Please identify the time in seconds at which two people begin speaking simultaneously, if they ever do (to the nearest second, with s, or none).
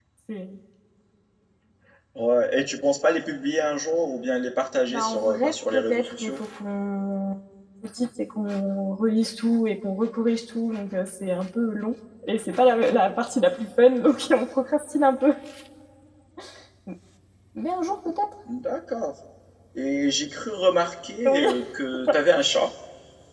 5 s